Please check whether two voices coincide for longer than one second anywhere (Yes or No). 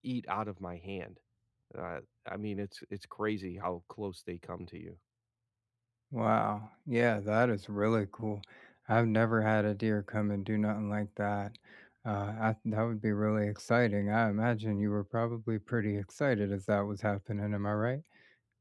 No